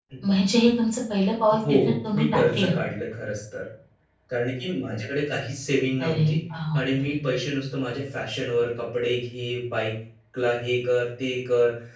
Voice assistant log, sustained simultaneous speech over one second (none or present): none